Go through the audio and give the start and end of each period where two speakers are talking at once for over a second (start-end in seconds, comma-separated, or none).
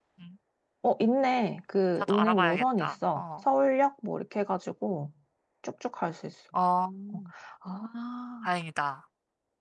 2.0-3.2